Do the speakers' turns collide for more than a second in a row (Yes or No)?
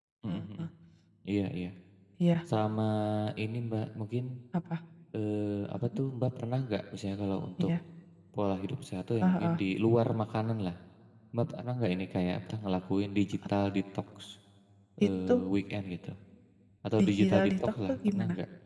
Yes